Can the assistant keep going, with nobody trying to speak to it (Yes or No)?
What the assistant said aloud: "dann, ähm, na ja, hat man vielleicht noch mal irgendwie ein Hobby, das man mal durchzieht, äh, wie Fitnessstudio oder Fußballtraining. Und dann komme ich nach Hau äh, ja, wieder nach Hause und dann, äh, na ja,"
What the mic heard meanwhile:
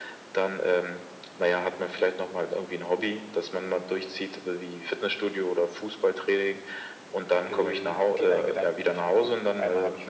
No